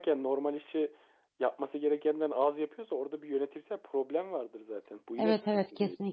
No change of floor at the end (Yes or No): No